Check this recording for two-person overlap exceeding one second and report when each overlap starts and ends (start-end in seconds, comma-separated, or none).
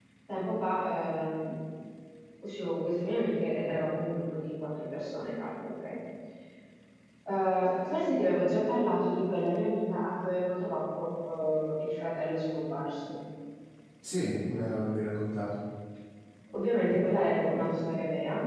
none